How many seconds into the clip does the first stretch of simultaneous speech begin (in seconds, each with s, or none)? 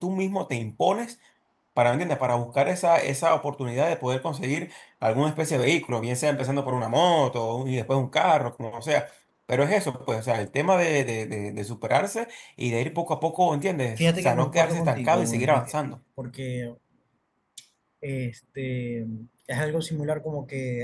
14.0 s